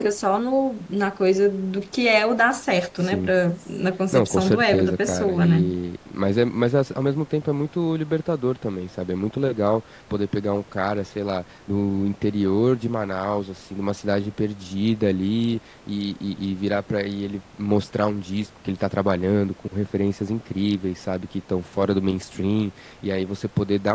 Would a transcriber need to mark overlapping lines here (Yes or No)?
Yes